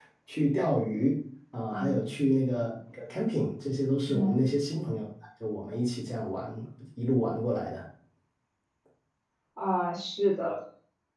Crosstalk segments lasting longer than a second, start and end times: none

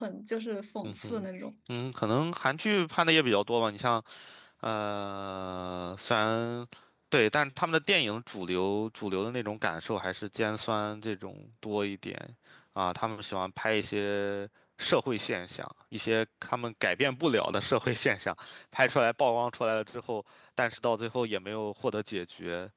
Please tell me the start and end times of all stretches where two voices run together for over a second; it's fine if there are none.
none

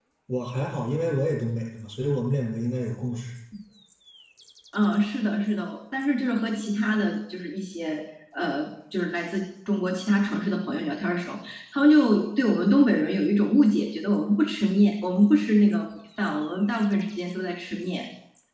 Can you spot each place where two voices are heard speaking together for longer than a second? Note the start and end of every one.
none

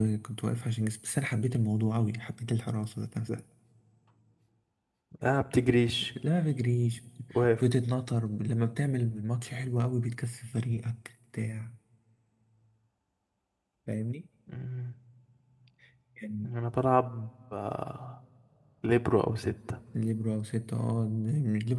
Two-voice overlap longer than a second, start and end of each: none

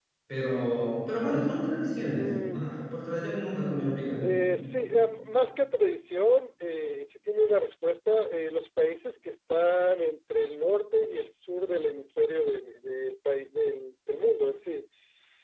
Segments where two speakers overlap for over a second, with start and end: none

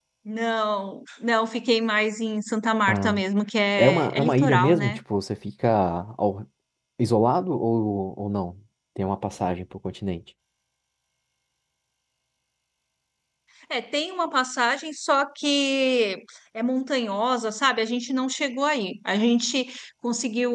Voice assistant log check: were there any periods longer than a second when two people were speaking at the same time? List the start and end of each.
3.8-5.0

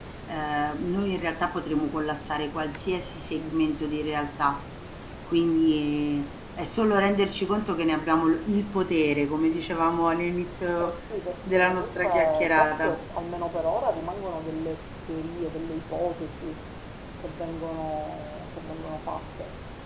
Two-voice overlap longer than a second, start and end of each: 11.5-13.0

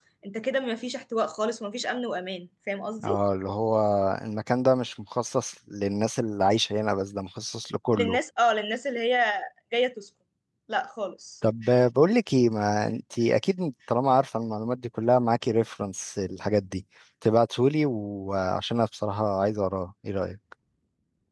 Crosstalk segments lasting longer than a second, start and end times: none

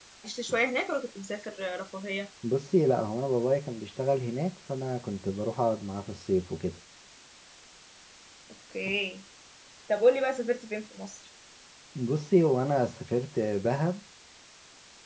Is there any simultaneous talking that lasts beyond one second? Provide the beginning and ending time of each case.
none

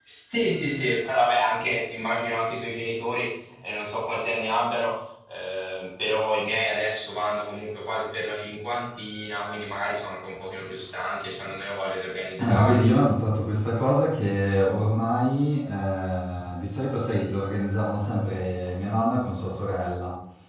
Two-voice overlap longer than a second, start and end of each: none

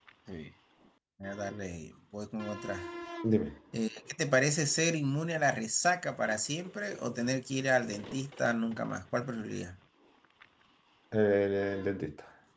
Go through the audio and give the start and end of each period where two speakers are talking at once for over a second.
none

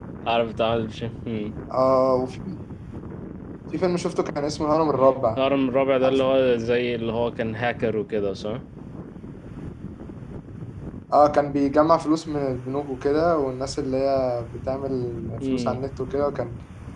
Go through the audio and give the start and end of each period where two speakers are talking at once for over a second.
none

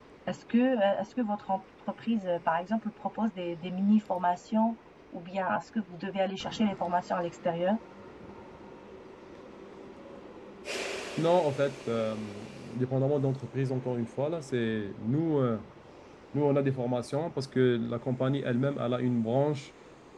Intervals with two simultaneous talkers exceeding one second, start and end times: none

